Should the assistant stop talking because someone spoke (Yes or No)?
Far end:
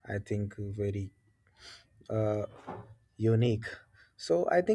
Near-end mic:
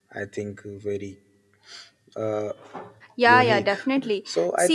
Yes